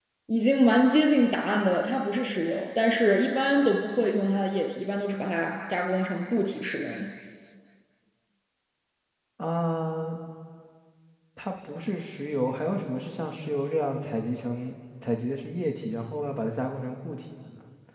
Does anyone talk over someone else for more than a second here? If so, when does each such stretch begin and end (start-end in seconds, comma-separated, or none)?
none